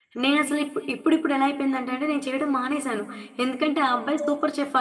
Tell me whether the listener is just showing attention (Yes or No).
Yes